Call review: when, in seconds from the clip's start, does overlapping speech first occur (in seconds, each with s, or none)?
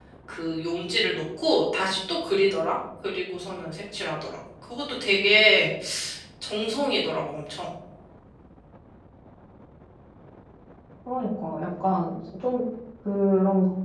none